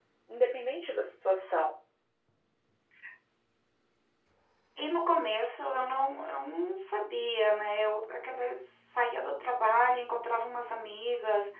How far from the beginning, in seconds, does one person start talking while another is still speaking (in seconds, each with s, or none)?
none